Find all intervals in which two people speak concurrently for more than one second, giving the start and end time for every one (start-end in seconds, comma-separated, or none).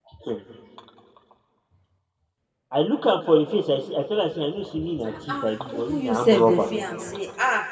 5.1-6.6